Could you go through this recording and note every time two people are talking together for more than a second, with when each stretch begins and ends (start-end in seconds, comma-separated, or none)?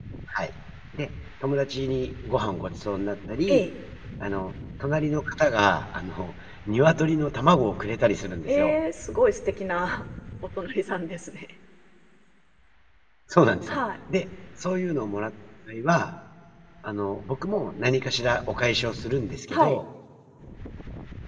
none